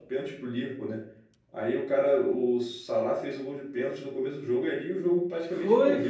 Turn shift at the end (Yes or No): Yes